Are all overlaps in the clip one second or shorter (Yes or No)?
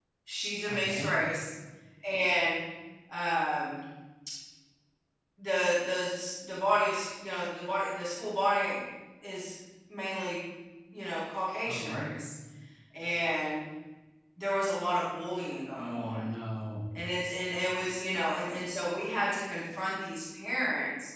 Yes